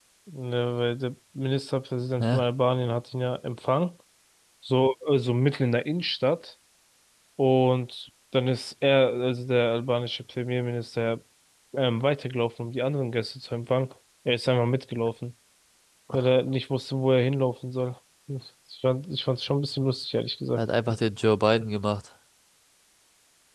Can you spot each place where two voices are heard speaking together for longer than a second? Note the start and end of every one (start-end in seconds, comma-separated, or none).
none